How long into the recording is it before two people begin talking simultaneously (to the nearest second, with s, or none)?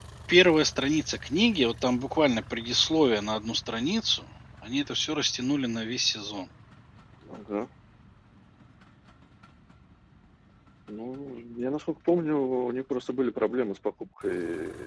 none